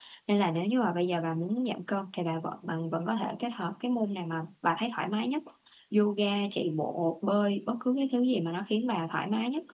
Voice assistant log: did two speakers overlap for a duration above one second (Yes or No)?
No